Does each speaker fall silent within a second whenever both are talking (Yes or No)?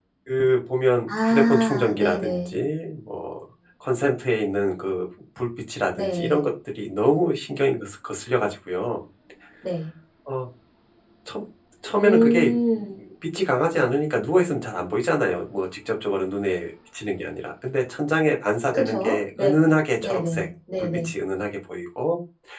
No